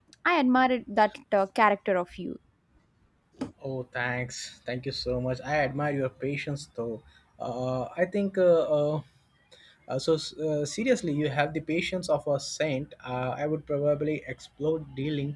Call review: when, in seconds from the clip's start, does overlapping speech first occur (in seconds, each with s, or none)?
none